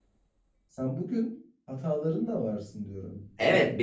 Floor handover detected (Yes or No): Yes